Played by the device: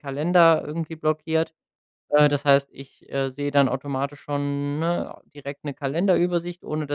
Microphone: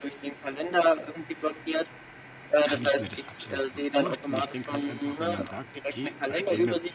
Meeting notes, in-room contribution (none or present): present